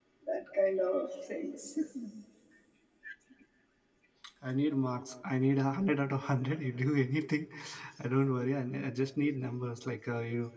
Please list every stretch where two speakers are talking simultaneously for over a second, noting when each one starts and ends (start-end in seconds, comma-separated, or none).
none